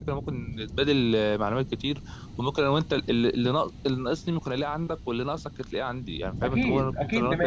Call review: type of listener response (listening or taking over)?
taking over